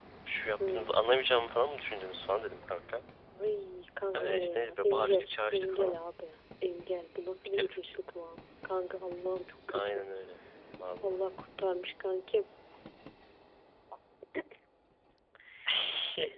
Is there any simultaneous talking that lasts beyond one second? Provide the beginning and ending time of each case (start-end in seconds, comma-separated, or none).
4.1-6.0